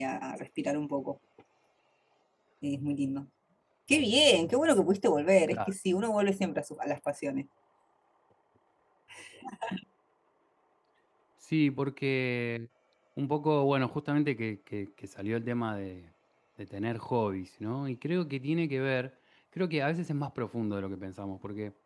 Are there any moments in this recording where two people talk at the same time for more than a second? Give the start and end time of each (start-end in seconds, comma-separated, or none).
none